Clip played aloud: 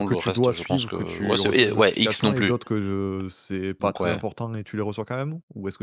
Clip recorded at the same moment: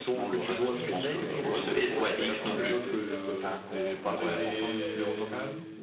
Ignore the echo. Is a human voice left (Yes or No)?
Yes